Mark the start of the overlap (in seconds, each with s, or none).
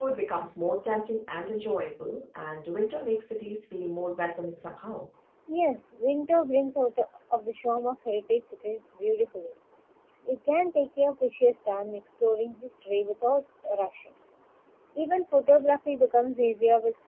none